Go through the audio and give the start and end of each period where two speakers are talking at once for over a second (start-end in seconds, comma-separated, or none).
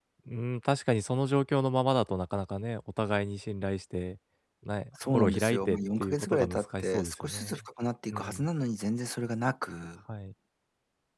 5.1-7.7